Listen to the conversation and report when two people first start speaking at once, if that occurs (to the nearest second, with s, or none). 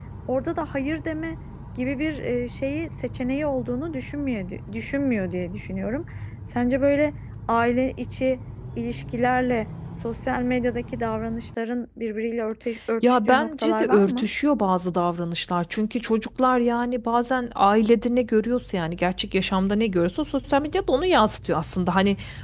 13 s